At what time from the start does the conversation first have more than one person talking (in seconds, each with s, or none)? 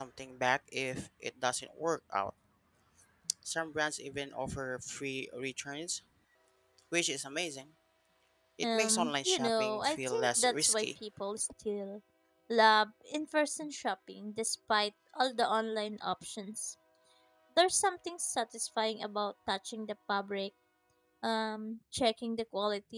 8.7 s